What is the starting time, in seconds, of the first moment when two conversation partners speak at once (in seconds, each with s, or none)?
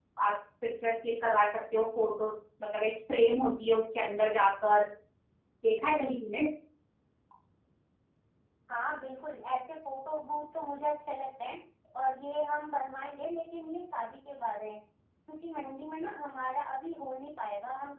none